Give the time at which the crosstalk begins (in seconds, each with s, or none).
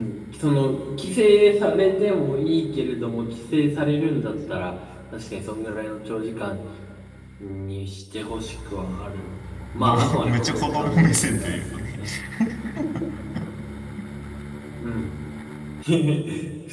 9.8 s